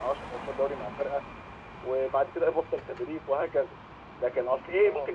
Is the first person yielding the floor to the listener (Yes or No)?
No